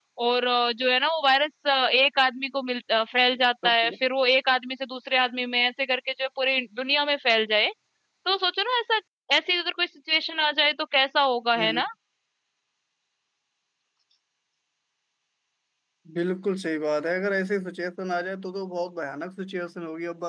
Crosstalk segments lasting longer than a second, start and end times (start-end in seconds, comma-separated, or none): none